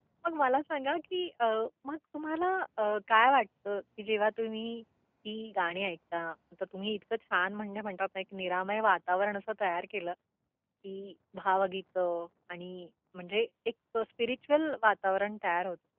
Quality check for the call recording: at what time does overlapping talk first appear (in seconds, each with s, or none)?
none